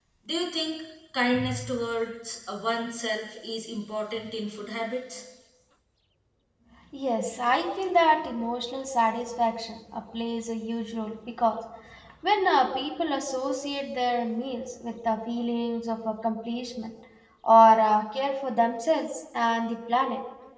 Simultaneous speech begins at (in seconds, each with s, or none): none